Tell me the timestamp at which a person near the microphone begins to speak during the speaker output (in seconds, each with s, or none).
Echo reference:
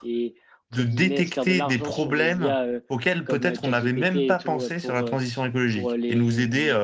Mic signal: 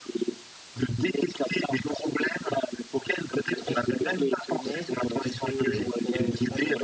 3.5 s